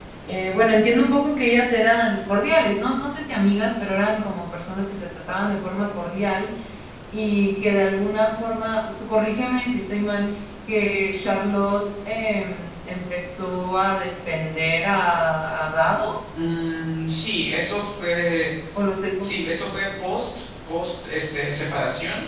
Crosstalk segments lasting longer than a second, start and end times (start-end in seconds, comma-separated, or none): none